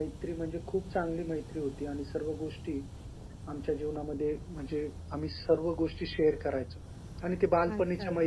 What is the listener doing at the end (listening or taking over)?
taking over